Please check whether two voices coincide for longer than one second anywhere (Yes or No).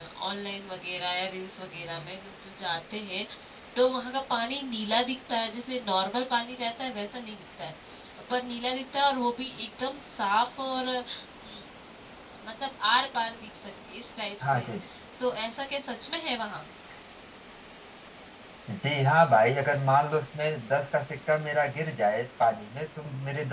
No